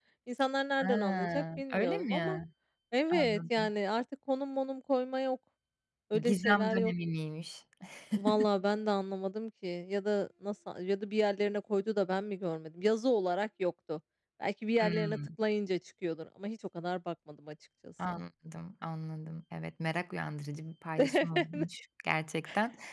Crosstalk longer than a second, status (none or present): present